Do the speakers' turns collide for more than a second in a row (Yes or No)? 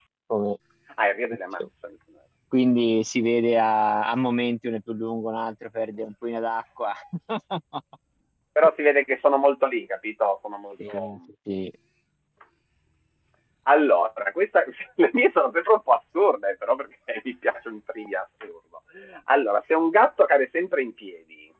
No